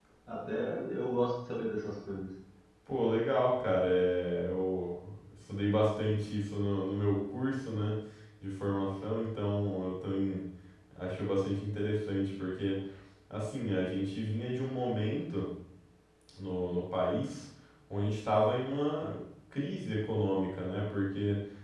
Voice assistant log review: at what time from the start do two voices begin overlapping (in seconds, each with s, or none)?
none